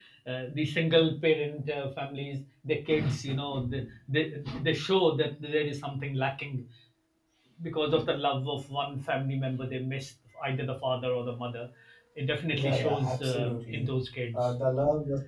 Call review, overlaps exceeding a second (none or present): present